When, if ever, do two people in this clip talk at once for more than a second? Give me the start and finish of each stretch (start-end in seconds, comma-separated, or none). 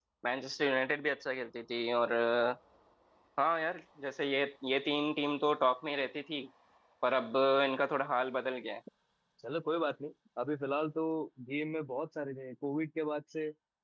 none